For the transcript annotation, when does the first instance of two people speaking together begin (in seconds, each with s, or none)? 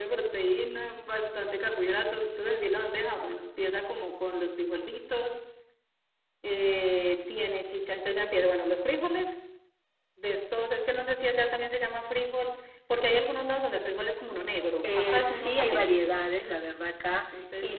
14.8 s